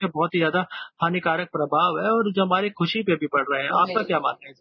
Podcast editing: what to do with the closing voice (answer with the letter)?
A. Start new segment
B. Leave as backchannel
A